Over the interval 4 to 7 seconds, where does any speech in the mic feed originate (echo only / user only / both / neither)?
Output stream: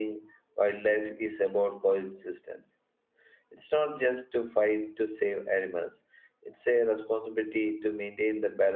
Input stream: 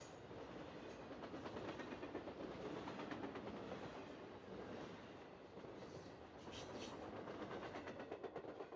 neither